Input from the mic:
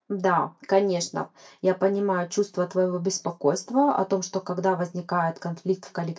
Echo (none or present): none